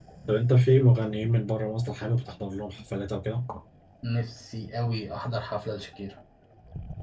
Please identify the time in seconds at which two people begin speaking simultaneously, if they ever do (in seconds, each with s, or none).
none